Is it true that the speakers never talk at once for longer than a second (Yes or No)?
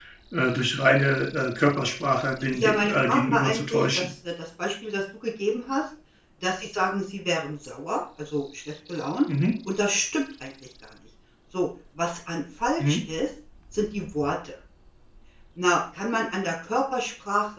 No